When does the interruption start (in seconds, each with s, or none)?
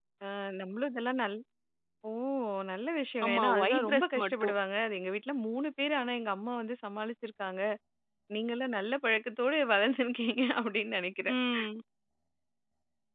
3.2 s